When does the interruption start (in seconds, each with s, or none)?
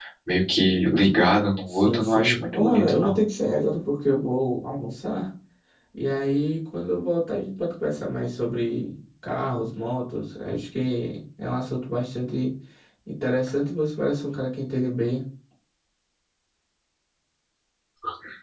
1.7 s